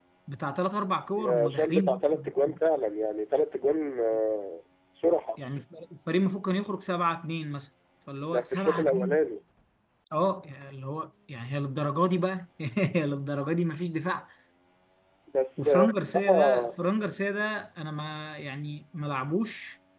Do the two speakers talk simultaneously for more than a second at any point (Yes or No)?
Yes